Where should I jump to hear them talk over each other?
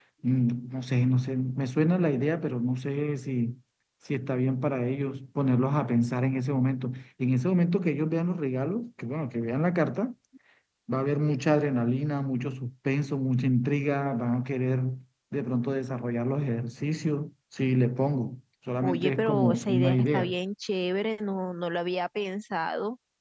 18.8 s

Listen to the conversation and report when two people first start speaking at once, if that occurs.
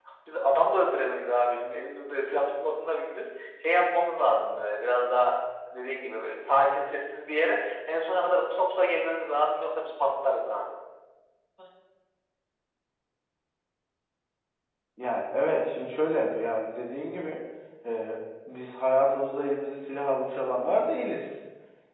none

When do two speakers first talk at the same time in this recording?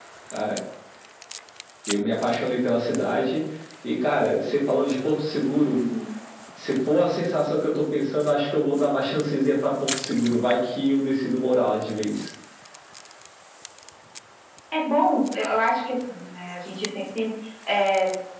none

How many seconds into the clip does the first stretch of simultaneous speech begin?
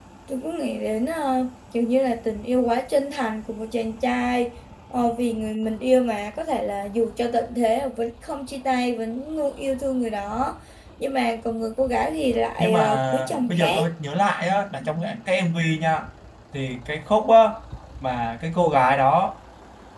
12.6 s

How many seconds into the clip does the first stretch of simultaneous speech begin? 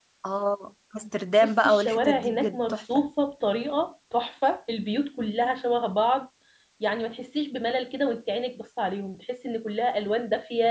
1.4 s

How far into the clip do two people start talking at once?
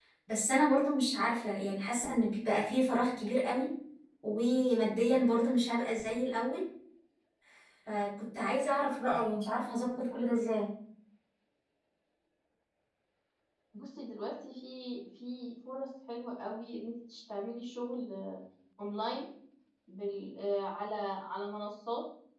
none

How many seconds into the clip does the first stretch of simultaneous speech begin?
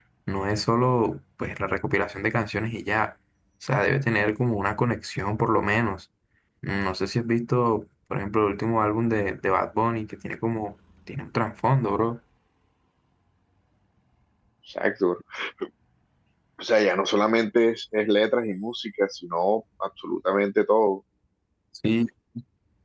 none

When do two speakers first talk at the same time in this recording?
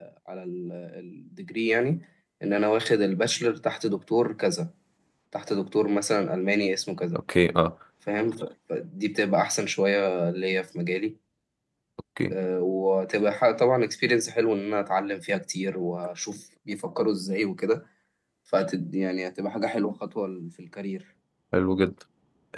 none

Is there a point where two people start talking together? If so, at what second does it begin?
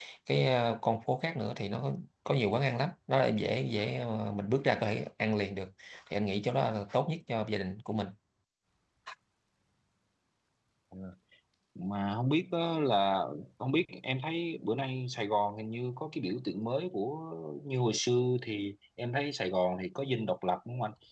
none

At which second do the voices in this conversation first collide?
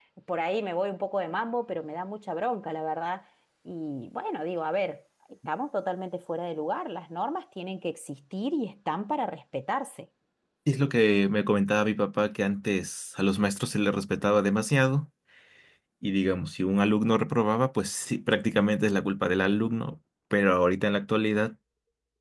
none

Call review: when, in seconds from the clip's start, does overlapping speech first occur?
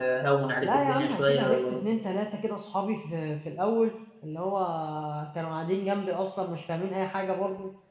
0.6 s

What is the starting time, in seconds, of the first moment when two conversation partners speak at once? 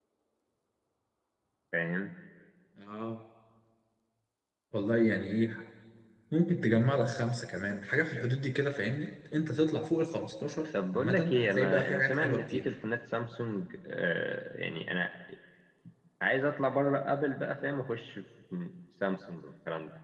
10.7 s

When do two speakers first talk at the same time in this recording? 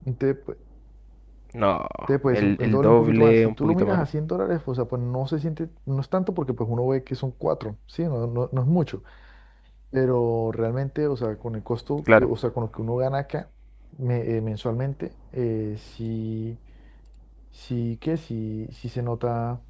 2.3 s

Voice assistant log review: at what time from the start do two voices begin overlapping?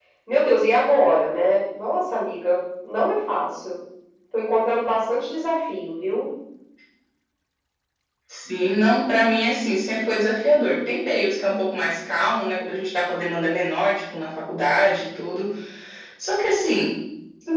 none

